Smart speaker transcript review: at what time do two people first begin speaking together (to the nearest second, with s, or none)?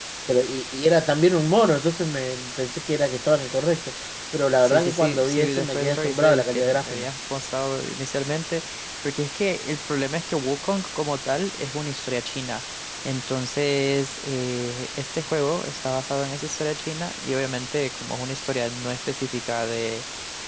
5 s